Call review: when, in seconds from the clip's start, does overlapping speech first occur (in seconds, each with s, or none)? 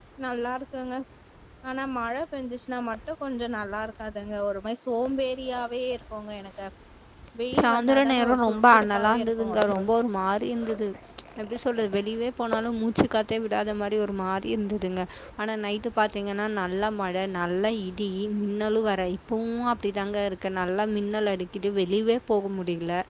7.6 s